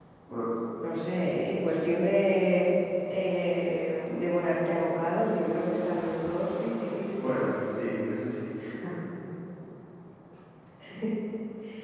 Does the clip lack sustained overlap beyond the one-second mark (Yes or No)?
Yes